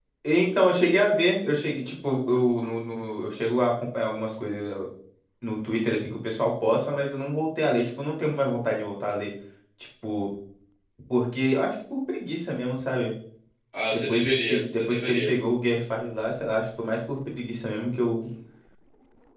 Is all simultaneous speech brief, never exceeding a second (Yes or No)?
No